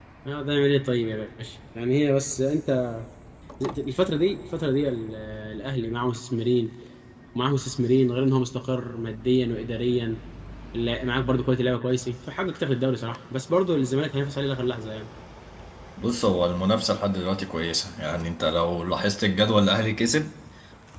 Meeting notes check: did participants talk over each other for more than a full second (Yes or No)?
No